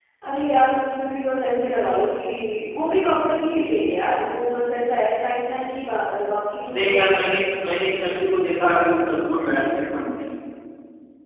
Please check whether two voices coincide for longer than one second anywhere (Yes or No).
No